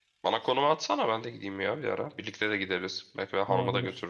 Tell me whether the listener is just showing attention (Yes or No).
No